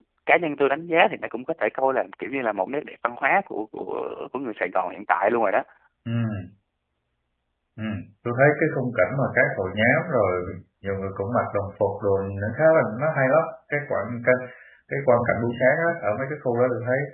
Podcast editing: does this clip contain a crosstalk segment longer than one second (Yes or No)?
No